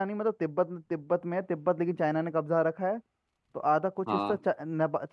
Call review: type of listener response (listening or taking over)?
listening